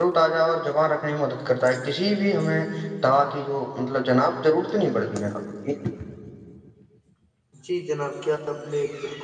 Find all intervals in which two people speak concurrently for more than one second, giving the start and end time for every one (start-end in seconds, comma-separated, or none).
none